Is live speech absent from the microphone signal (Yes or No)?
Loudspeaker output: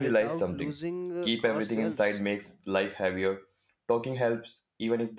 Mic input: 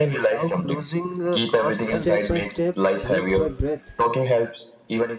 No